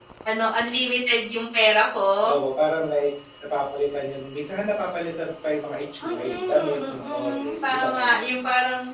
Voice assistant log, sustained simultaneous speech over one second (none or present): present